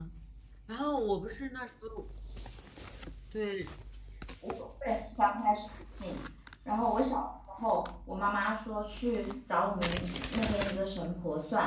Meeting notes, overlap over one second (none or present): none